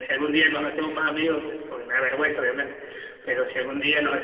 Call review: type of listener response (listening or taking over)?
listening